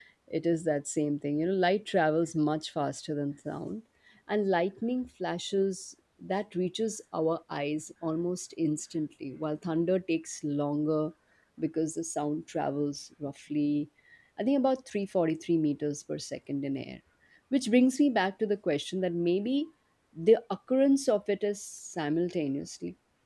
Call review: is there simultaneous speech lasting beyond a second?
No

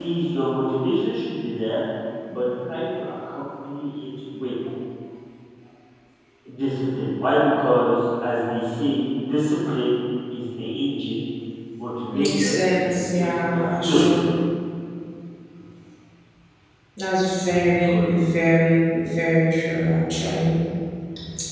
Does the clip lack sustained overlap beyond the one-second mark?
No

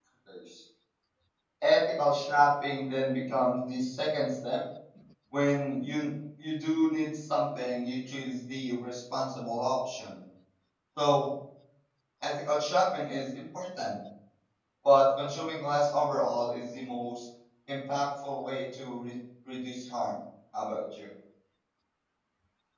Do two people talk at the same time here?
No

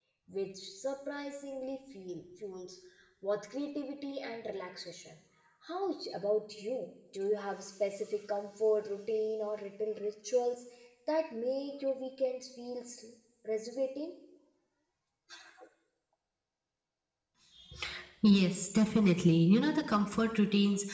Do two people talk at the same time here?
No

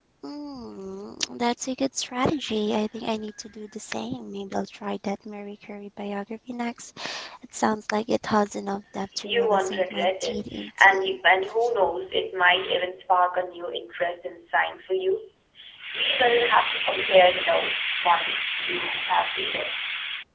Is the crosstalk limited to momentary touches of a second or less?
No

